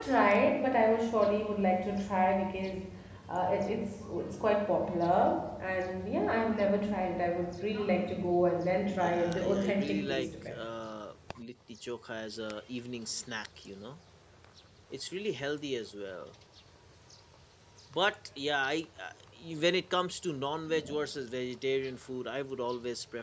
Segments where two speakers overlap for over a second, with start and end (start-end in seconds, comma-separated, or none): 8.9-10.6